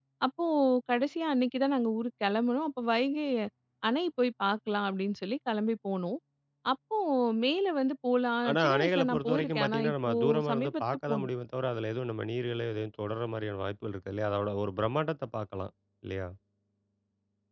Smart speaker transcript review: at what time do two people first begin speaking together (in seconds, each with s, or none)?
8.4 s